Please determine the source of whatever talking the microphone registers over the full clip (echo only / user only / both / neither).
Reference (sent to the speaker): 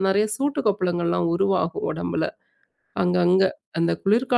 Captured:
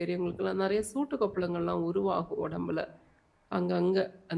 echo only